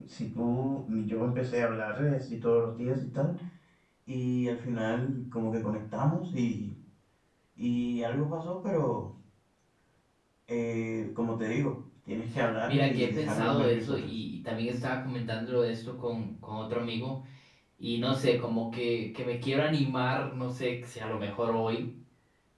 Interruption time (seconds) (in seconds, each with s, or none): 12.7 s